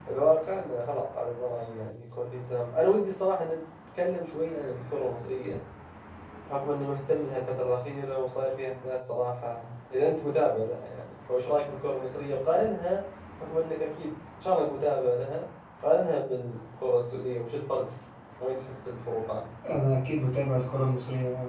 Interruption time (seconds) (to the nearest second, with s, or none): none